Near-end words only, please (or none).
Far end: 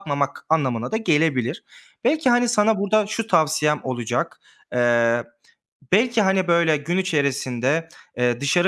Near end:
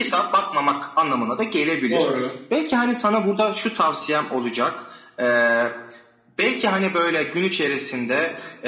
Doğru.